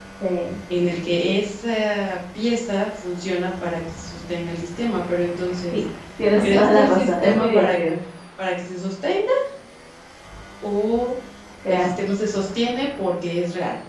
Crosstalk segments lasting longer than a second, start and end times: 6.4-7.7

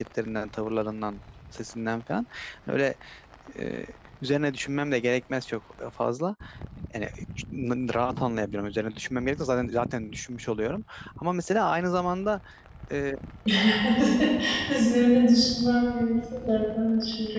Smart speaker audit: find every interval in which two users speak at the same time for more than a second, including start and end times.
none

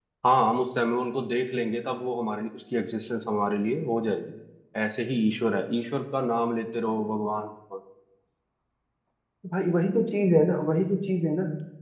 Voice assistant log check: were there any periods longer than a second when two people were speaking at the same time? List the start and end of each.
none

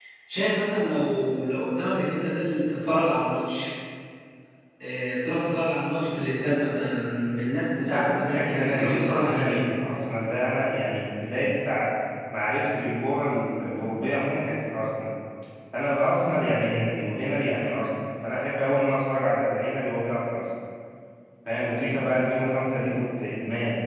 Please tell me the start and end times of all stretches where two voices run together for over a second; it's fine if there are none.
7.8-9.6

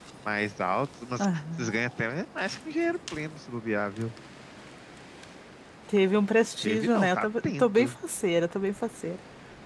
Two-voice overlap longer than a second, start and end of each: 6.6-7.9

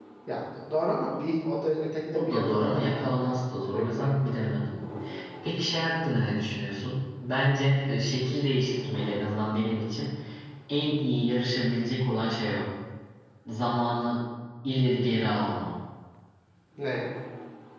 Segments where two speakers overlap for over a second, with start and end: 2.1-4.4

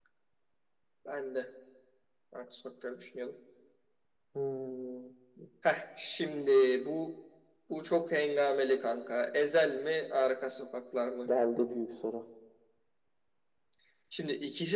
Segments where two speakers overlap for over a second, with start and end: none

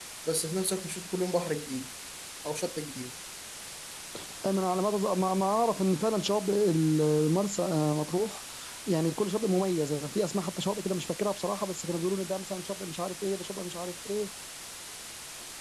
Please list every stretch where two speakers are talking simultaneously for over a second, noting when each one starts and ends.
none

